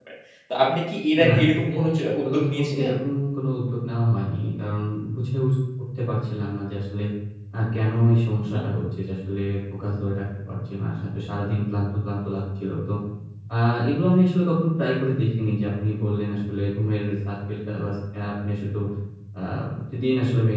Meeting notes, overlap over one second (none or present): present